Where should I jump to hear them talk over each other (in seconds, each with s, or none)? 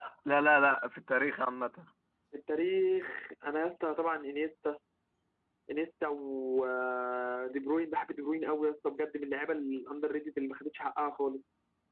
none